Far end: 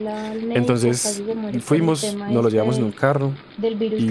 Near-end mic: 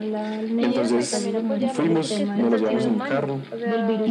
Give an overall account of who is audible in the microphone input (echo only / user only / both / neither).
both